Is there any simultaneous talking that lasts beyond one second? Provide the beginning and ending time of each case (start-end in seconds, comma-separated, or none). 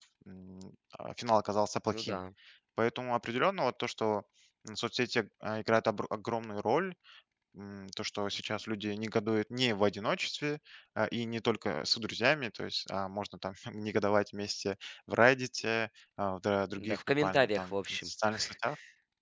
16.8-18.1